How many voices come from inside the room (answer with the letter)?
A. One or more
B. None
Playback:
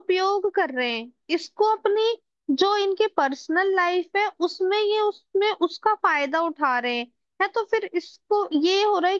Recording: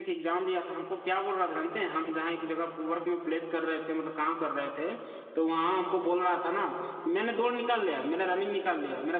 A